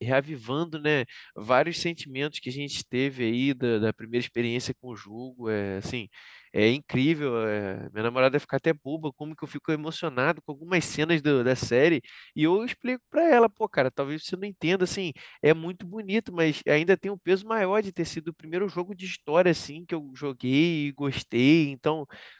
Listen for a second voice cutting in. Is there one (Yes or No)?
No